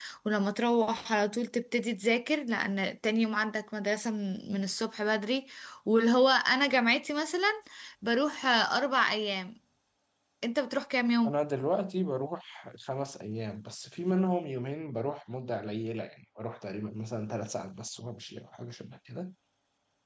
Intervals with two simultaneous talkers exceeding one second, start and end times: none

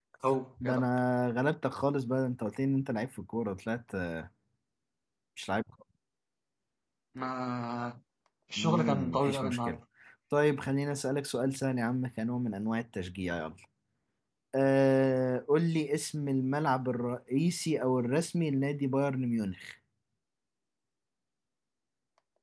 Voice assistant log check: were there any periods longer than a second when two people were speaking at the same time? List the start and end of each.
8.6-9.8

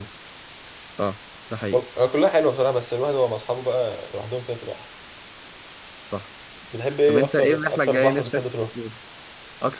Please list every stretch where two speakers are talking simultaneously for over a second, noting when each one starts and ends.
7.1-8.4

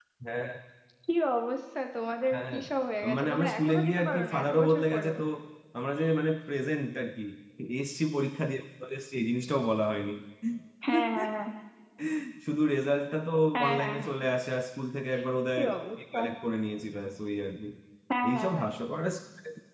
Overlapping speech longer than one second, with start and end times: 3.2-5.2

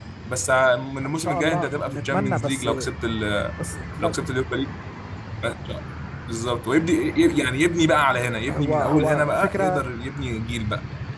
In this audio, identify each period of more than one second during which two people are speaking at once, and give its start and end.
1.0-2.7, 8.5-9.8

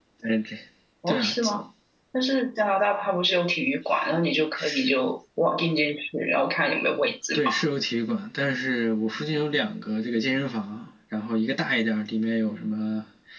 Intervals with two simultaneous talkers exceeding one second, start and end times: none

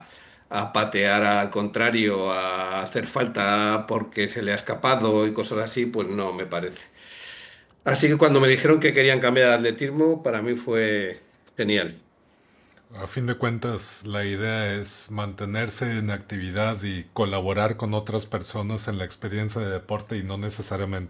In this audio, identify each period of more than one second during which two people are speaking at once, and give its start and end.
none

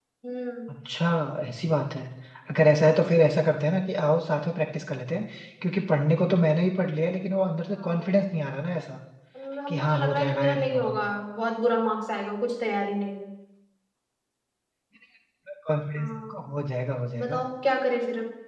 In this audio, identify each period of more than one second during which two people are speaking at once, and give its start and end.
9.7-10.9

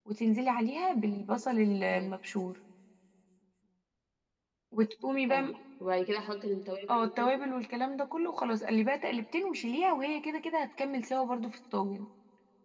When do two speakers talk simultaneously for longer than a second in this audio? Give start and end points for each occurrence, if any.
none

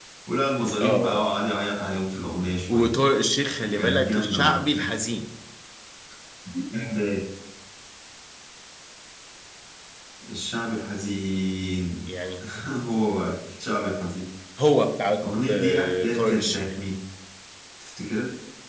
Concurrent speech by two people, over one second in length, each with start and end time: 3.7-5.0, 15.2-16.8

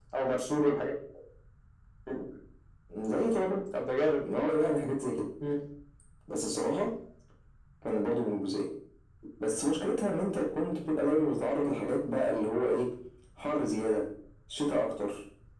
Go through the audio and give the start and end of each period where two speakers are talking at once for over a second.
none

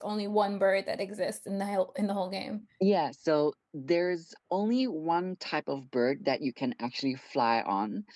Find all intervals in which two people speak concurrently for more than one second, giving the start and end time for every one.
none

